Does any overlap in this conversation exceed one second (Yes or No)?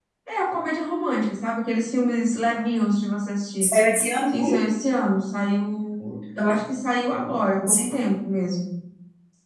No